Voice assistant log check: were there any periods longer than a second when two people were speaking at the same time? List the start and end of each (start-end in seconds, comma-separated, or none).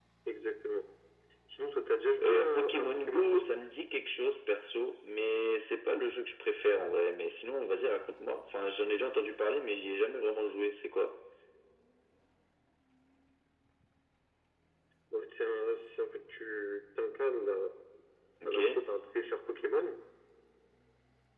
2.2-3.5